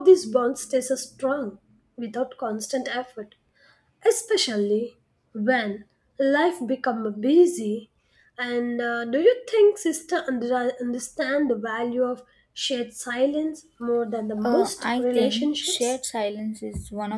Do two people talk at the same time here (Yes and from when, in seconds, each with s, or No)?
Yes, from 14.4 s